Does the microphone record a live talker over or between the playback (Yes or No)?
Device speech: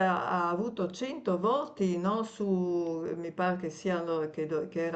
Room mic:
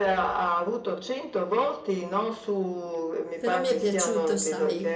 Yes